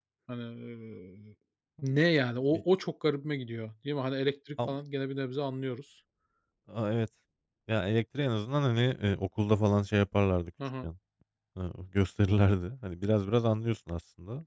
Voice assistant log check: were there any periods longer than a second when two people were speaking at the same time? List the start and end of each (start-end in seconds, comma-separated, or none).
none